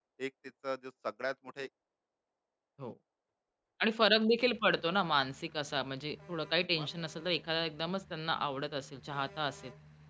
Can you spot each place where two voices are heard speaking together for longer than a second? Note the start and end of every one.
none

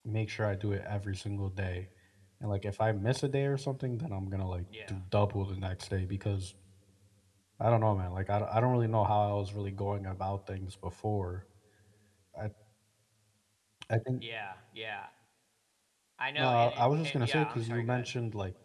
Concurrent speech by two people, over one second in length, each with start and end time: 16.4-18.1

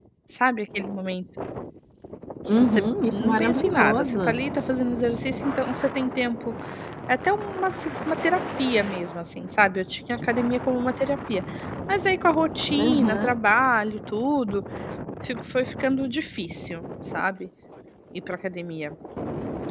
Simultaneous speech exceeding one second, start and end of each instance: 2.5-4.4

